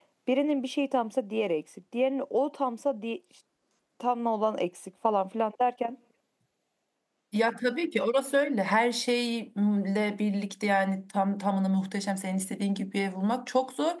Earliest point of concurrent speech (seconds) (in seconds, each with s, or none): none